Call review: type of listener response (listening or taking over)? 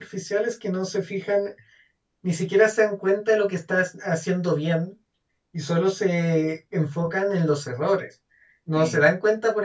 listening